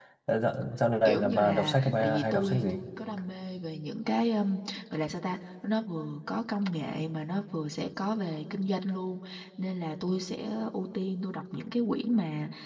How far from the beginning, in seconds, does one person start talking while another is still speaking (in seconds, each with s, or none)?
1.1 s